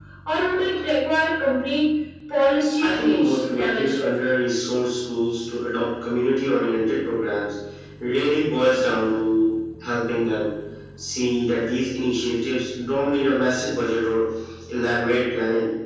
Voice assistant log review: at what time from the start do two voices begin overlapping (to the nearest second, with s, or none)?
3 s